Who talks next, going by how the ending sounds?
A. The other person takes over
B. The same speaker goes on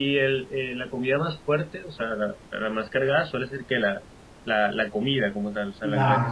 A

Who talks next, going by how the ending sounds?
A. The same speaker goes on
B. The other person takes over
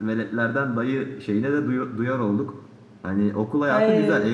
A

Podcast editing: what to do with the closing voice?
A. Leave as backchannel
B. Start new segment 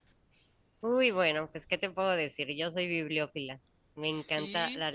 A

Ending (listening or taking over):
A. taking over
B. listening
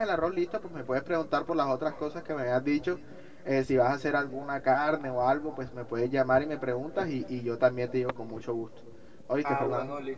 A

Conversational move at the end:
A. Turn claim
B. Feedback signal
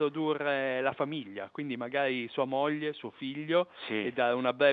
B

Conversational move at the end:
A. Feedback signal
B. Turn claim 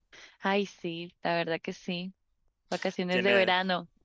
B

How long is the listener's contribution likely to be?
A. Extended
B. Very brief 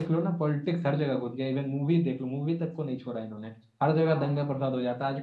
B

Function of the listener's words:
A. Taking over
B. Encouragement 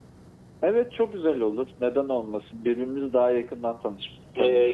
A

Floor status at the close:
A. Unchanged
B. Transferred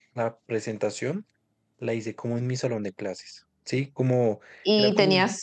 B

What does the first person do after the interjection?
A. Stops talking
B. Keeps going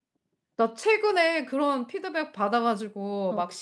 B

